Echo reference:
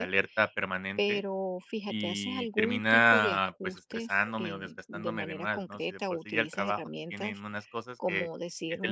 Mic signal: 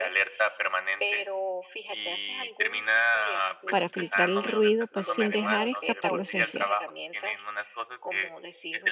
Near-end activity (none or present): present